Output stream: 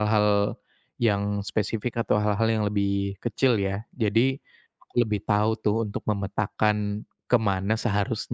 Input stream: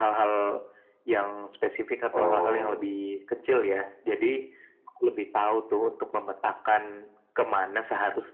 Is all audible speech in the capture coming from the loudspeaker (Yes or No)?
No